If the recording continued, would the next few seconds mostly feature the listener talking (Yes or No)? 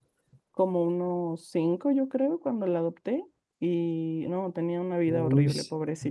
Yes